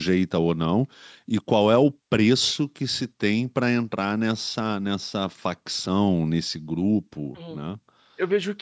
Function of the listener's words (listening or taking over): taking over